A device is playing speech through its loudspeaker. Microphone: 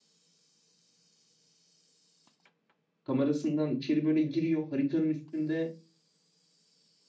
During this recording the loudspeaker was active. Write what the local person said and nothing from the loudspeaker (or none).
kamerasından içeri böyle giriyor. Haritanın üstünde